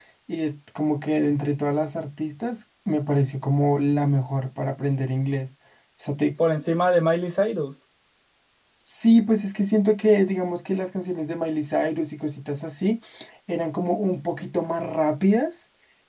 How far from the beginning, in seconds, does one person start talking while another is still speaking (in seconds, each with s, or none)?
none